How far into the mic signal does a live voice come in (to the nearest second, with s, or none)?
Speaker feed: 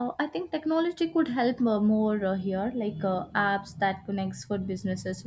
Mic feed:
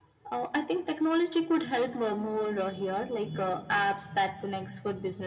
none